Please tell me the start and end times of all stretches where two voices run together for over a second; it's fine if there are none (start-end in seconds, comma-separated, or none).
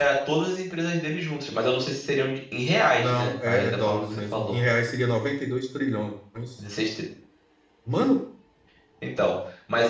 3.0-4.5